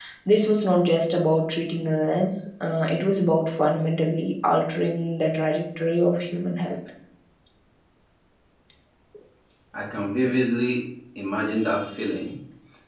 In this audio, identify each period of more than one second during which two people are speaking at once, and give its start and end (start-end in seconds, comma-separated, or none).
none